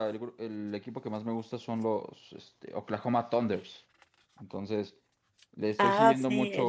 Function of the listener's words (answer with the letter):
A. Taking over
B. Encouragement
A